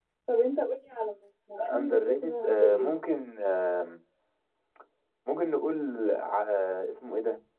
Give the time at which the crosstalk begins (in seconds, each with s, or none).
1.6 s